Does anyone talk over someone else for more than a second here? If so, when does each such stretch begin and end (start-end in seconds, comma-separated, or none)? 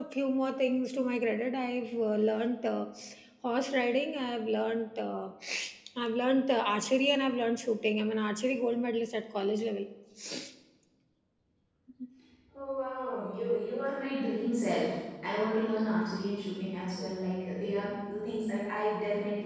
none